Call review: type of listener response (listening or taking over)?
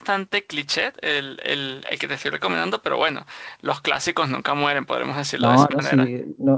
taking over